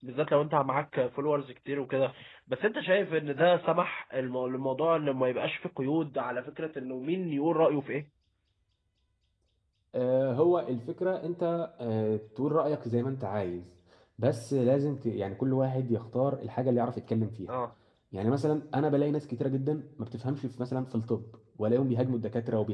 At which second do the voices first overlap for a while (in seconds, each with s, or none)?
none